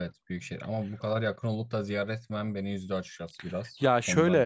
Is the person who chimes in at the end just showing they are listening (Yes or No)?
No